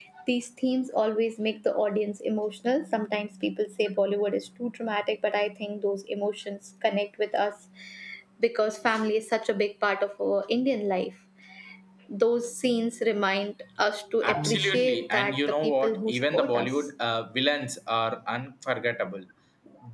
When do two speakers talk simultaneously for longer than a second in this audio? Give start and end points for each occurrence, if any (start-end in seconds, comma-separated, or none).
14.2-16.7